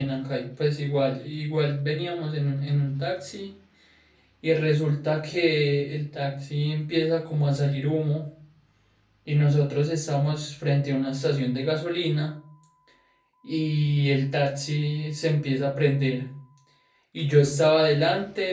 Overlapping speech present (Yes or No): No